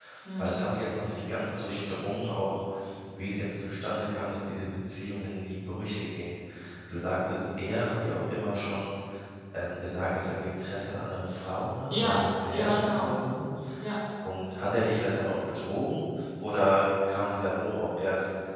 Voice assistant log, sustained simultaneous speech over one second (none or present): present